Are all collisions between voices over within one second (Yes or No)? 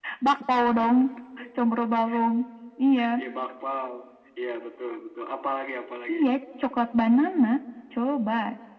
Yes